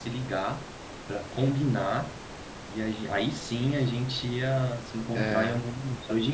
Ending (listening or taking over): listening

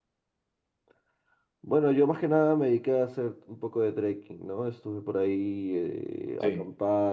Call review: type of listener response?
listening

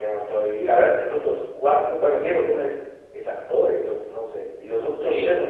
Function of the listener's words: taking over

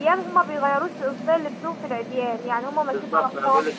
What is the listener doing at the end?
taking over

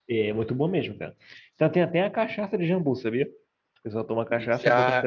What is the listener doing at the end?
taking over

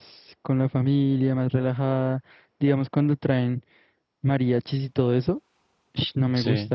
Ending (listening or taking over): listening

